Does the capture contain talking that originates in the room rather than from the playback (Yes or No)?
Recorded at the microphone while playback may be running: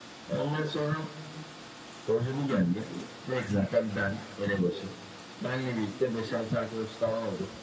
No